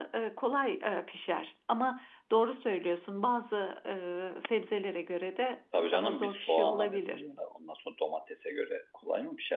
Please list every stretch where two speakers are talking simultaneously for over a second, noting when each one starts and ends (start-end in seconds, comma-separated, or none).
5.8-7.2